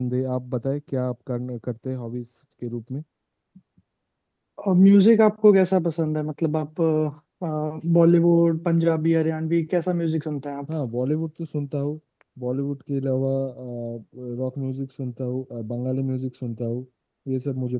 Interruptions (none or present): none